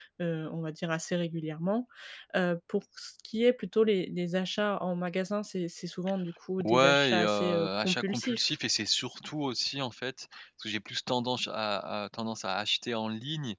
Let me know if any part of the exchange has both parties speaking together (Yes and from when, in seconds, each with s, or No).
Yes, from 6.6 s